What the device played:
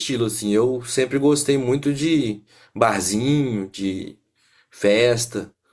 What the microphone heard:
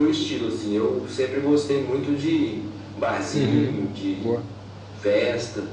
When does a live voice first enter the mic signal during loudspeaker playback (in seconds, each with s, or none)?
3.3 s